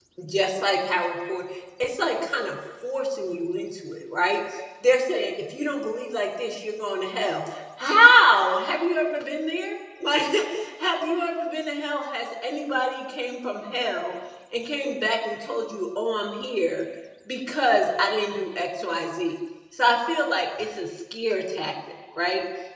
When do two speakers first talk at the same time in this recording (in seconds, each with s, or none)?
none